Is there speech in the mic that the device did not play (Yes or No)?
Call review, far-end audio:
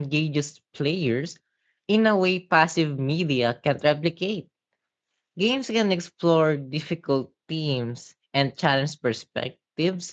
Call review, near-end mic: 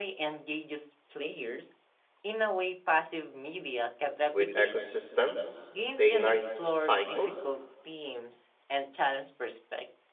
Yes